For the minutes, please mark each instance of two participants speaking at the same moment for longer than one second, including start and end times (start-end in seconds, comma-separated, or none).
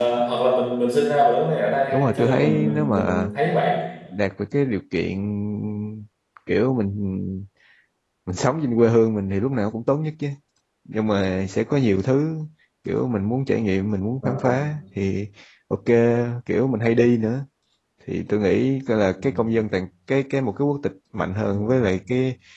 1.9-3.3